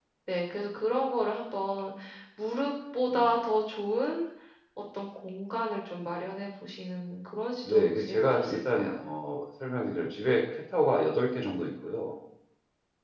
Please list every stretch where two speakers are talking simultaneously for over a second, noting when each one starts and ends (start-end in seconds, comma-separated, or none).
7.7-8.9